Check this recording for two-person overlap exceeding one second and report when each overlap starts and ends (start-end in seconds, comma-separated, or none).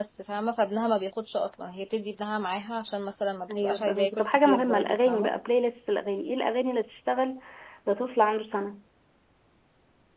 3.5-5.3